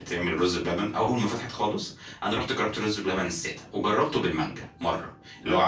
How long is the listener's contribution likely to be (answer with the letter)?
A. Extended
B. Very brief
B